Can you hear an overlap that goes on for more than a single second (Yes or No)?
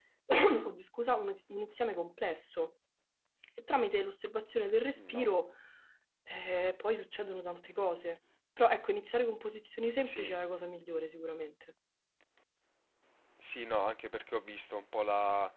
No